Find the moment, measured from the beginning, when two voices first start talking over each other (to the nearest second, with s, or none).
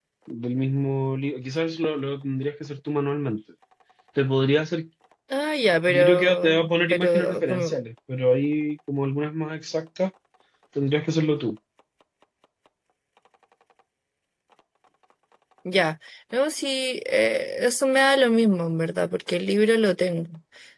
6 s